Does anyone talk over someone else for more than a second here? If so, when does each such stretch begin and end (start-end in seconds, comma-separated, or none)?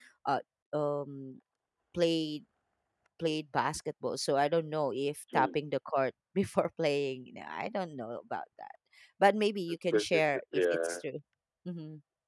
9.7-11.0